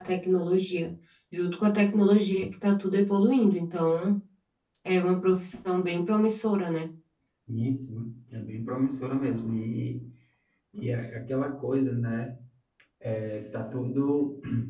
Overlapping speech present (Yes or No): No